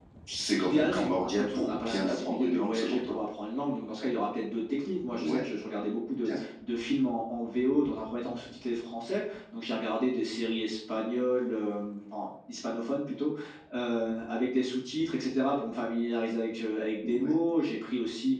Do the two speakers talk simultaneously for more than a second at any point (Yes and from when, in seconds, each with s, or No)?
Yes, from 0.6 s